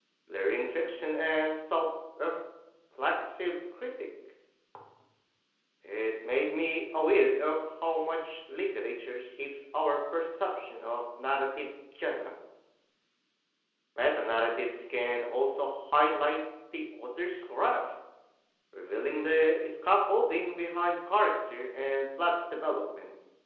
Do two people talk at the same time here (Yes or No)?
No